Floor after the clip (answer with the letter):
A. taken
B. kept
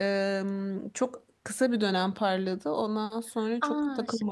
A